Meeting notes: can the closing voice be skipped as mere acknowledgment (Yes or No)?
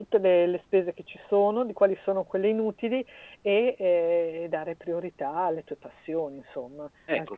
No